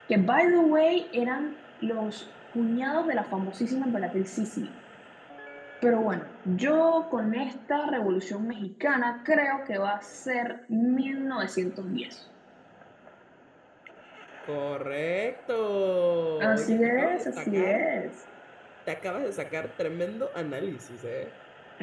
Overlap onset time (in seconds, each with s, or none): 16.4 s